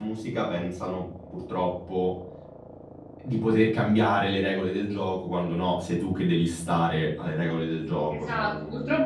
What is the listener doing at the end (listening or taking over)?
taking over